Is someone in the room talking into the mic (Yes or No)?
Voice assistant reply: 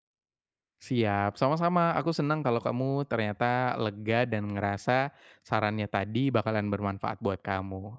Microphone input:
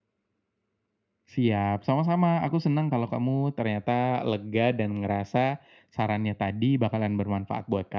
No